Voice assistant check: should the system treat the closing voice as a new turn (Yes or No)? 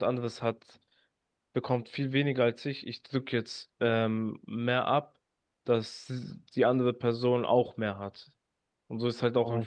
Yes